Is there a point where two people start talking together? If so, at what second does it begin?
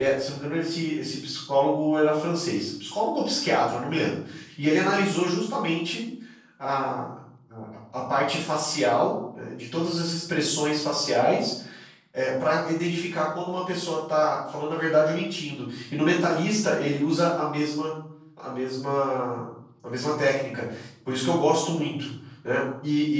none

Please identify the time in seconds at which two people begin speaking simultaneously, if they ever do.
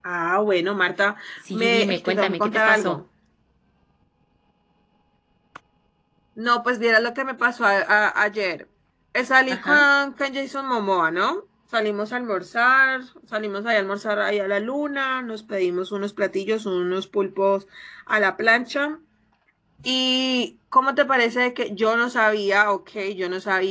2 s

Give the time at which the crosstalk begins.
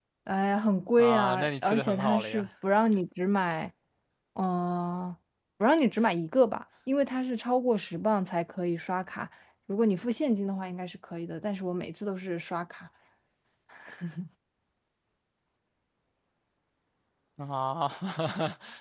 1 s

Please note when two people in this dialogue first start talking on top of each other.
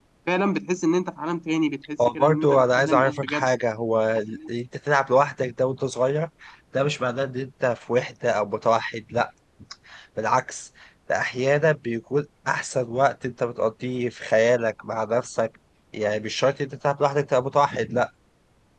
2 s

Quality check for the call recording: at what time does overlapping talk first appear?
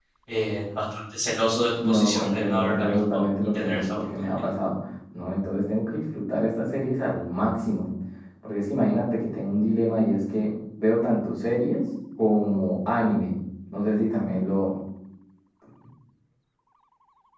2 s

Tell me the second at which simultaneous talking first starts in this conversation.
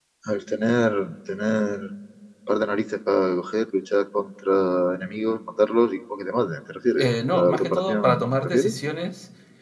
7 s

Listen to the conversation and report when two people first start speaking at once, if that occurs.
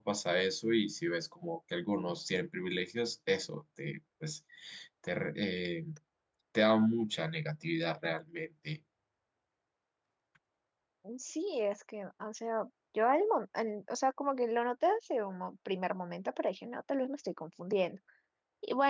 none

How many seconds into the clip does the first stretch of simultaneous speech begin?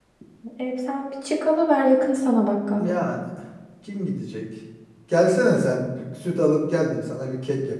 none

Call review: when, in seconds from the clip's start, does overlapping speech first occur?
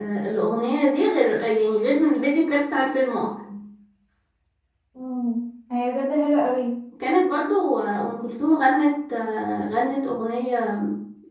none

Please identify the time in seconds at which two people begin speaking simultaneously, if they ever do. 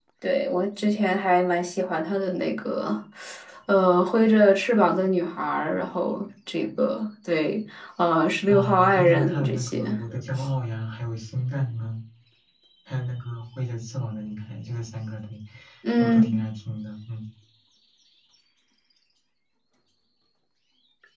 8 s

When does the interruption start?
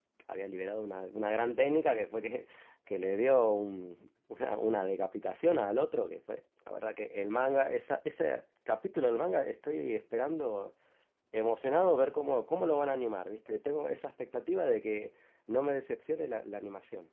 none

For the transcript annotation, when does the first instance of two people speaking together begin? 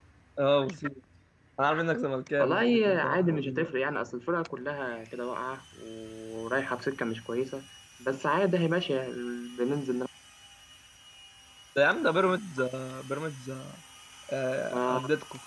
2 s

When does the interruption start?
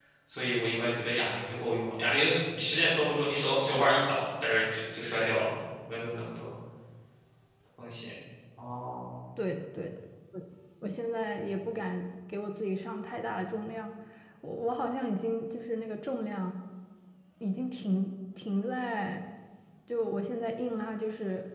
none

